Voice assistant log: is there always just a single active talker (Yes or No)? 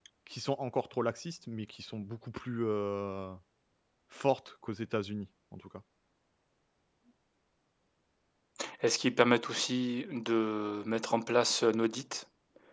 Yes